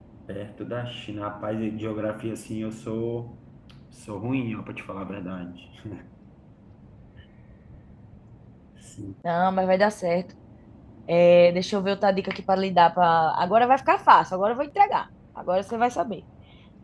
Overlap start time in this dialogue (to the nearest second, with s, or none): none